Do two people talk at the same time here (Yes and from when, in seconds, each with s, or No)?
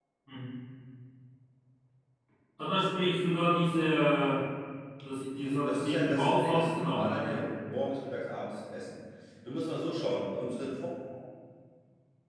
Yes, from 5.4 s